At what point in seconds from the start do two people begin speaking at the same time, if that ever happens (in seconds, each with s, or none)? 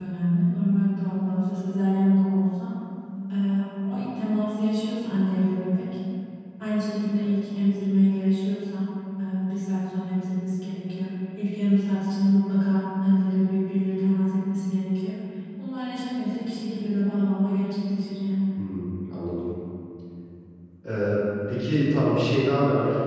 none